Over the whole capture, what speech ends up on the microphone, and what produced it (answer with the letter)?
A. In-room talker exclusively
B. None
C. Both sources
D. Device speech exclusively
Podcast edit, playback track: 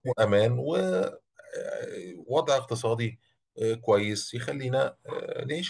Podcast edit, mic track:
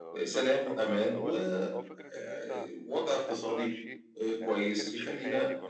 C